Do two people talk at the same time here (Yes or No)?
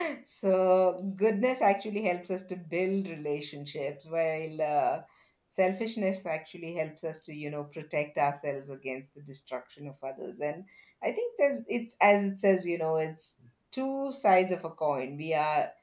No